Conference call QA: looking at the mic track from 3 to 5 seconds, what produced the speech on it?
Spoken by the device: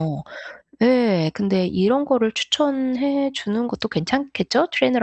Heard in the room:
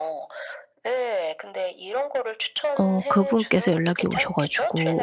both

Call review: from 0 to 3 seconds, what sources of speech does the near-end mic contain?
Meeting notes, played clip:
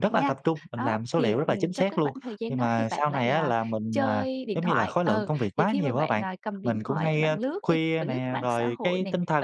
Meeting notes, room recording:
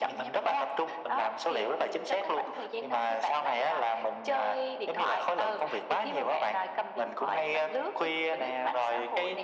echo only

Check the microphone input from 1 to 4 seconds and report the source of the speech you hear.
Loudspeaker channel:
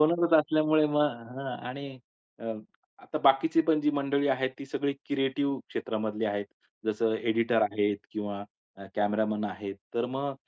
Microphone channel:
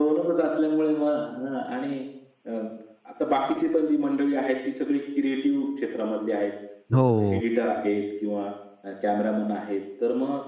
echo only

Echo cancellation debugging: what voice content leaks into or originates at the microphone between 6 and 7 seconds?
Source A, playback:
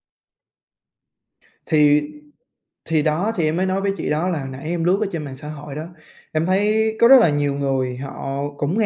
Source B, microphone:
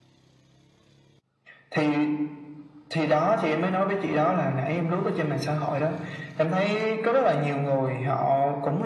echo only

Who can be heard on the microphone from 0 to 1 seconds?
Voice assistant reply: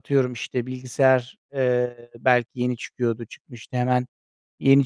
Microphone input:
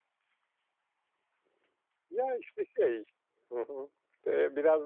neither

